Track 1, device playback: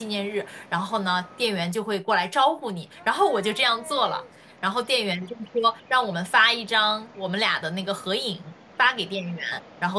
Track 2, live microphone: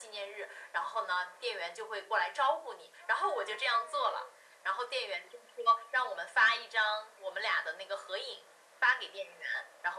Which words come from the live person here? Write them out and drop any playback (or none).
none